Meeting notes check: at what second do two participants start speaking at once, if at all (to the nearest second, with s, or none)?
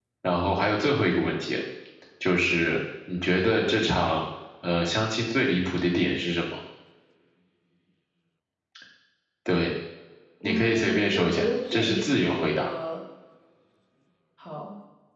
10 s